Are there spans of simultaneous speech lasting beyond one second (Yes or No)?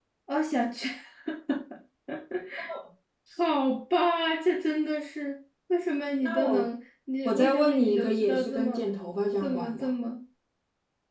Yes